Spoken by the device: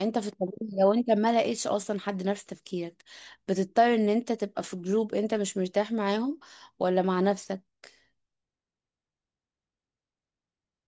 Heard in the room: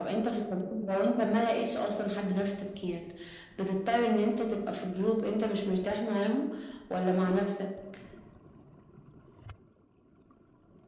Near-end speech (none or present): none